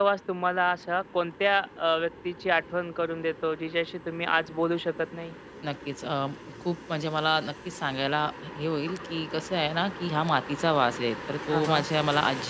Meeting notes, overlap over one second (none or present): none